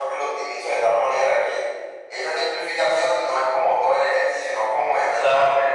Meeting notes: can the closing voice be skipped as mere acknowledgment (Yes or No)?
No